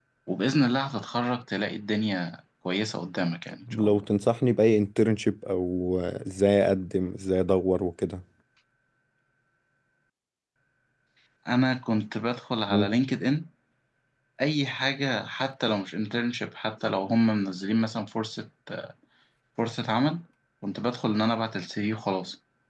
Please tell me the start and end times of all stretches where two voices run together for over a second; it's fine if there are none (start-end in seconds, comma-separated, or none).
none